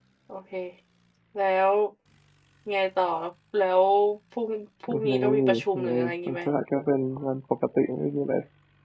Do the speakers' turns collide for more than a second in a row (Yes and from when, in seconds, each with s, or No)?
Yes, from 5.1 s